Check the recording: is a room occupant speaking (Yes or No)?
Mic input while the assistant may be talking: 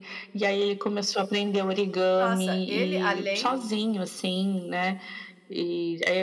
Yes